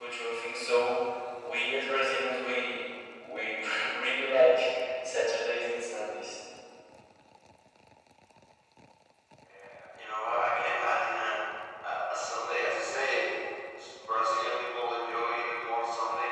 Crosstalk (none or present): none